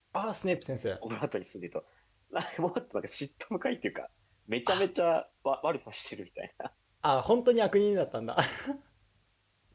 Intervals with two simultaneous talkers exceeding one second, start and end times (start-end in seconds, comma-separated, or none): none